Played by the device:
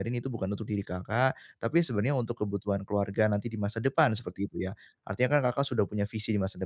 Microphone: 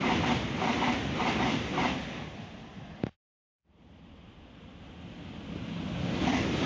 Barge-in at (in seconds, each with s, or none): none